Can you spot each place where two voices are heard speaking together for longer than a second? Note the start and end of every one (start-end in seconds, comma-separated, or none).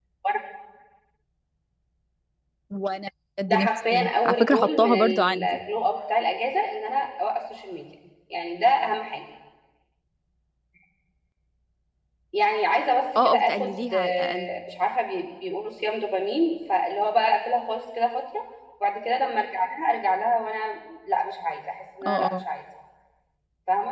3.5-5.6, 13.2-14.5